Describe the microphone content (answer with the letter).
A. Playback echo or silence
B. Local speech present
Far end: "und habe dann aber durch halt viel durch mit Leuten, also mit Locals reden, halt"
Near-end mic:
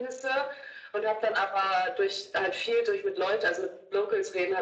A